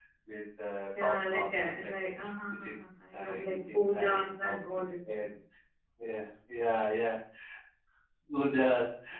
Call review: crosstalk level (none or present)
present